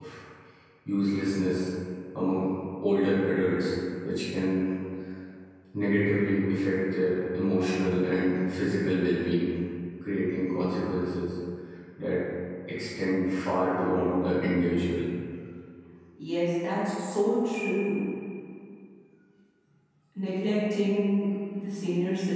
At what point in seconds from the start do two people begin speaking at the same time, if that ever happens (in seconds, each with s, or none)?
none